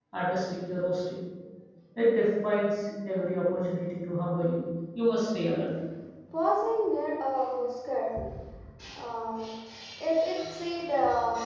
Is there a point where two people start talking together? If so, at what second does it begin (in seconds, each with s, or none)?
none